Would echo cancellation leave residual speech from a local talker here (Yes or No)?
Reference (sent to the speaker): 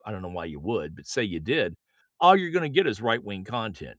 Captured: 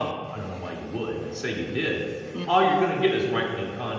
Yes